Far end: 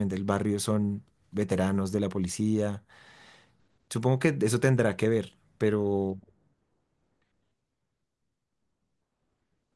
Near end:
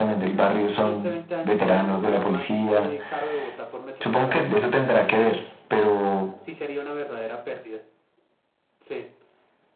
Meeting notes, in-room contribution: present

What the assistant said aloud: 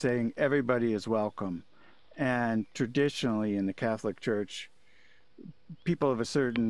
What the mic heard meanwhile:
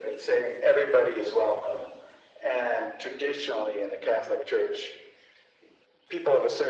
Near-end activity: none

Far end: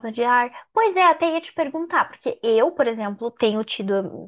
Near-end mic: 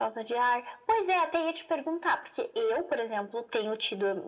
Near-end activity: none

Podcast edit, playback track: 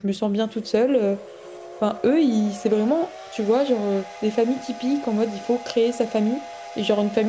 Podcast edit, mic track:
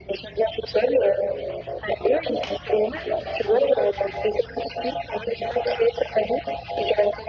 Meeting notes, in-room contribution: none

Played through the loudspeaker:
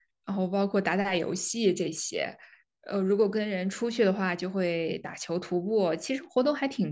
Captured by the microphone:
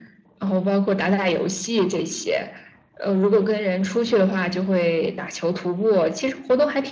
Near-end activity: none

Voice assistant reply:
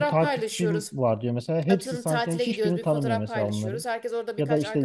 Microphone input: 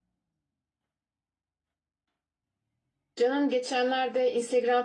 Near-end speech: present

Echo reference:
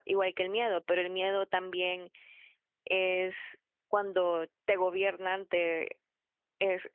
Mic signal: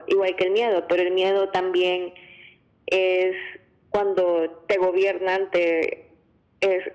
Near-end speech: none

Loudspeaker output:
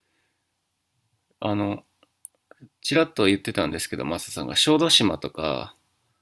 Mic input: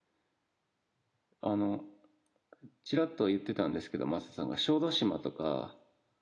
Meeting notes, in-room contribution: none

